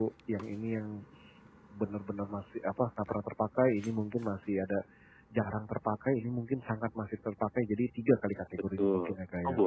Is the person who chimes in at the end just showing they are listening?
No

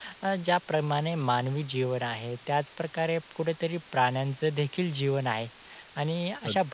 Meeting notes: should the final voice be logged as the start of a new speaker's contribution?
No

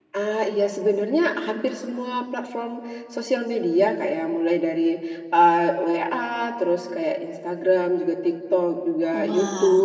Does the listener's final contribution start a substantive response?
No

